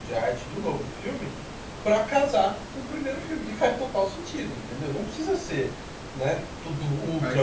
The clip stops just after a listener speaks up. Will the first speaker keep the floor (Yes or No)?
No